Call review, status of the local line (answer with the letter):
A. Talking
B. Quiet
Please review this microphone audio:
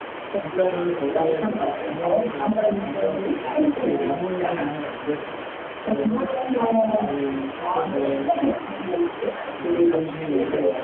A